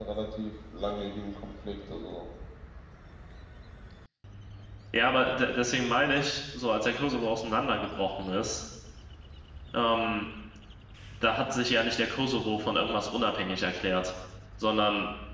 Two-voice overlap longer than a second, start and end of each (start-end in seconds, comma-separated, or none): none